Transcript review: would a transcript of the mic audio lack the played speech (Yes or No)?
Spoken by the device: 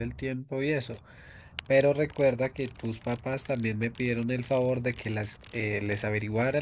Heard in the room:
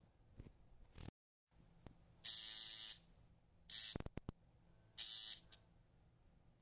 Yes